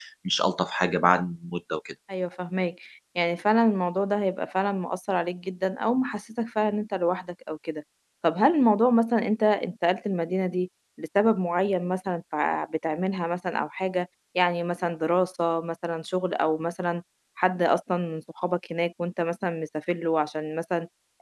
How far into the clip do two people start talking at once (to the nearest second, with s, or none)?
none